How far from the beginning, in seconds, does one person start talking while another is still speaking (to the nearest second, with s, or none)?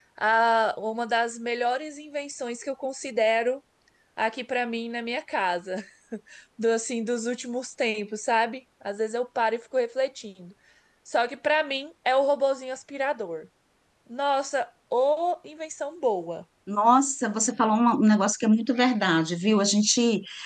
none